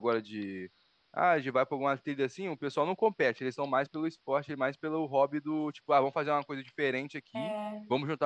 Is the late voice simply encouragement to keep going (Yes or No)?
Yes